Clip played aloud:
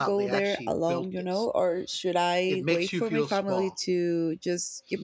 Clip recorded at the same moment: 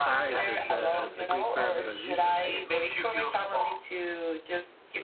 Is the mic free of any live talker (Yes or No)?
No